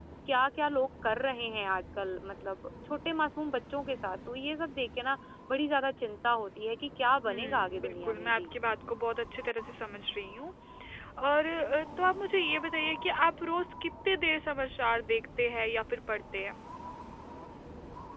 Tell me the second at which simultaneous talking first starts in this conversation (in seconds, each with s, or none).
7.3 s